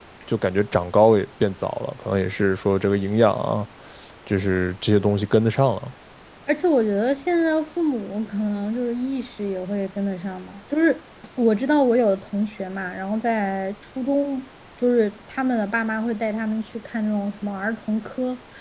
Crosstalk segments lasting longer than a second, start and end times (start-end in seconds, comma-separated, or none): none